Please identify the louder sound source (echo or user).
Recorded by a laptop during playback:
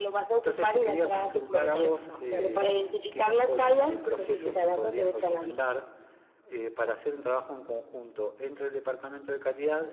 echo